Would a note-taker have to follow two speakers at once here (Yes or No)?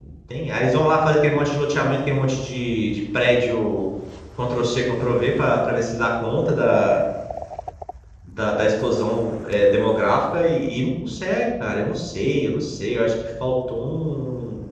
No